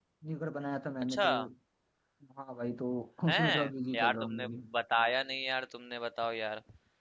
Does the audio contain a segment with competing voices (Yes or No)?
Yes